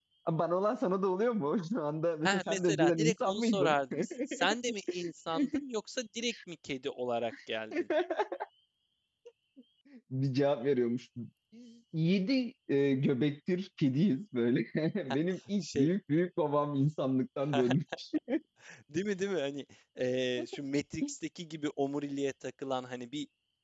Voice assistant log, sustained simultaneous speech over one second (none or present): present